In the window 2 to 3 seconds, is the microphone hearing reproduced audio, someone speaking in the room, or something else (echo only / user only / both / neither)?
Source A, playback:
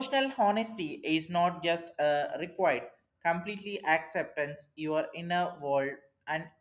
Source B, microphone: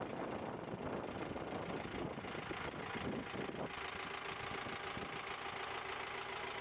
neither